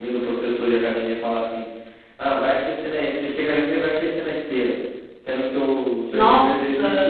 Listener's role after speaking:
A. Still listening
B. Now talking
A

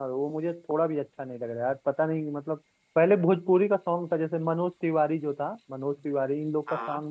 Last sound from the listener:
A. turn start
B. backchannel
B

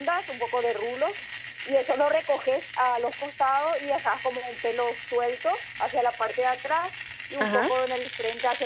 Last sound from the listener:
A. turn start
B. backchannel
B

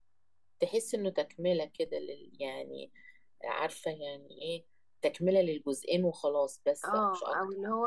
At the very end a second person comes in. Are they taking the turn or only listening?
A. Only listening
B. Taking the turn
B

